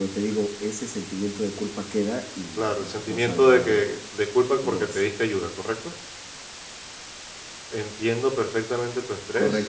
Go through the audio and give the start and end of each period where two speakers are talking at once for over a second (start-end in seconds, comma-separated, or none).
2.6-3.8